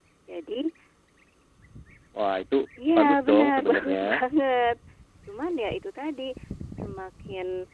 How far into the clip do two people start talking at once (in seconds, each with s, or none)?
3.0 s